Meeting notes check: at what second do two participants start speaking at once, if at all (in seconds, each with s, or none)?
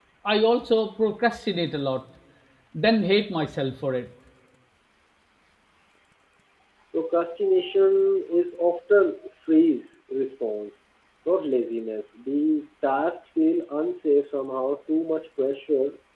none